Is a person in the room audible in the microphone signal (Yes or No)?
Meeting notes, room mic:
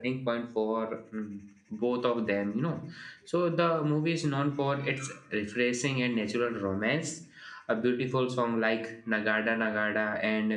Yes